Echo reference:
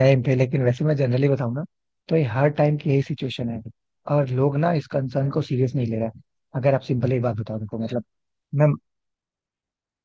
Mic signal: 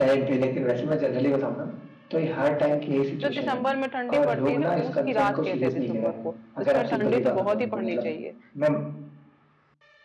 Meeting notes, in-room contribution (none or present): present